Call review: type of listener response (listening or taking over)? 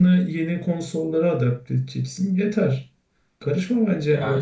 taking over